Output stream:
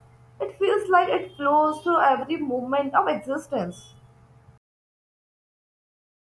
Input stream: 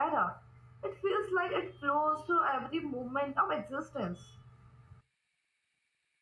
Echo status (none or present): present